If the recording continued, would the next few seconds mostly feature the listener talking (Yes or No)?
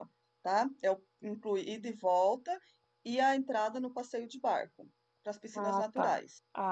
Yes